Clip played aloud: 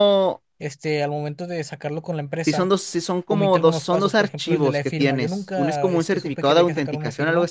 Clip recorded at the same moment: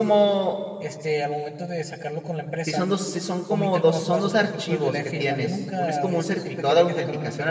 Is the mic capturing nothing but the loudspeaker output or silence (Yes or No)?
Yes